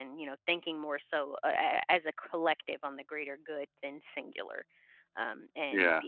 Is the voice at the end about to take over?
No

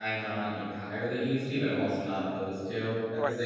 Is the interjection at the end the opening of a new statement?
Yes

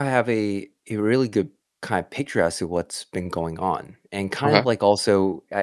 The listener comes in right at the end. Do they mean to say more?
No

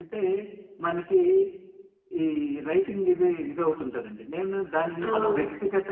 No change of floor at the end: Yes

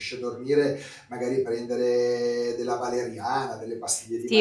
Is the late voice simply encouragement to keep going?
No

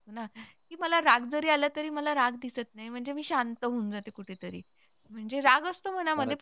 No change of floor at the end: Yes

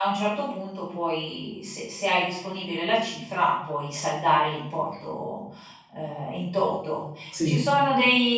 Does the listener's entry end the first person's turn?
No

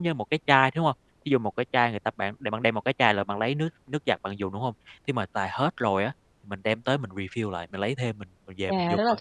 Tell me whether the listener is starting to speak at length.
Yes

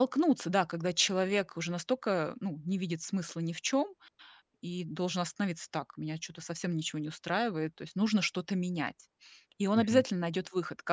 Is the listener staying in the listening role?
Yes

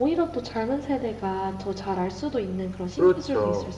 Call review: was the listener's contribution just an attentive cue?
No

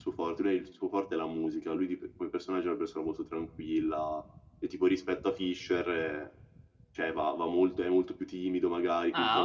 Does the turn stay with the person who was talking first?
No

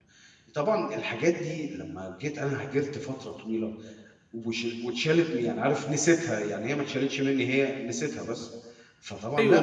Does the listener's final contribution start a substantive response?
Yes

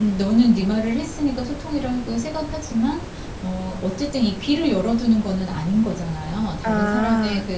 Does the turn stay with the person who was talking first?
Yes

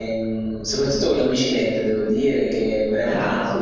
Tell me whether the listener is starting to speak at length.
No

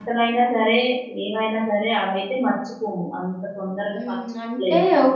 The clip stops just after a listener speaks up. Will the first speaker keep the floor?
No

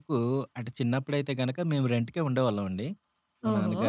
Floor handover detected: No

